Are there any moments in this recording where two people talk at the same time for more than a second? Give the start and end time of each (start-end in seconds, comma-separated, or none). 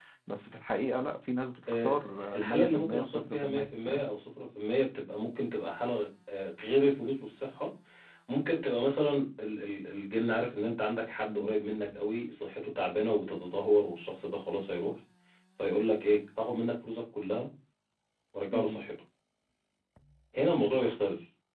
1.7-4.1